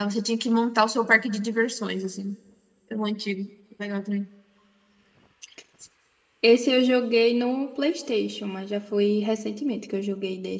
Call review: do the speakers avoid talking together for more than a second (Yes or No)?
Yes